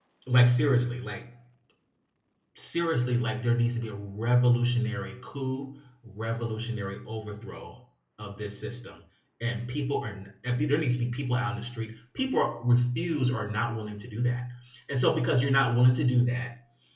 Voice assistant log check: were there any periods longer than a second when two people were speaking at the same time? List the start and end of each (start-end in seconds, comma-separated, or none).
none